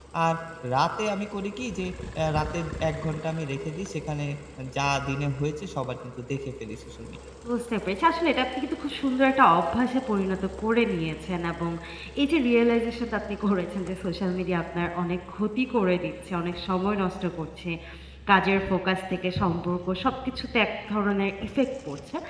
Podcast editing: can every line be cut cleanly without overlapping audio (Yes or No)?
Yes